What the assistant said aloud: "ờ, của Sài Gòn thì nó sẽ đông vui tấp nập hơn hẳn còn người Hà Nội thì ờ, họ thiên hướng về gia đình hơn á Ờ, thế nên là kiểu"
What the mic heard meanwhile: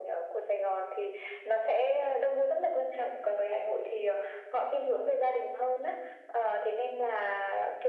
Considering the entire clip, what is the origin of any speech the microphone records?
echo only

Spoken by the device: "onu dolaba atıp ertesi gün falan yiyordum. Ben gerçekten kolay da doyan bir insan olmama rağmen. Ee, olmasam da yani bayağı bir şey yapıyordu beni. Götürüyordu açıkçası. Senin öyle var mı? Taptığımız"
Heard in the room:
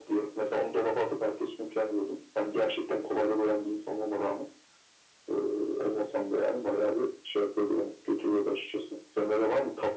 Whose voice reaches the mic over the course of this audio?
echo only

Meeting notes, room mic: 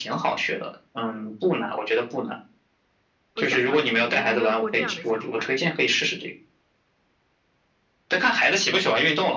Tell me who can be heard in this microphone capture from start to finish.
both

